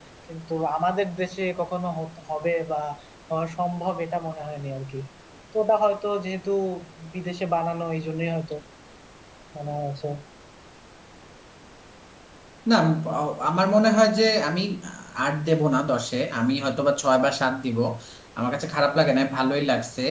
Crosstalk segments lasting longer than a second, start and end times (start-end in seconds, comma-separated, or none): none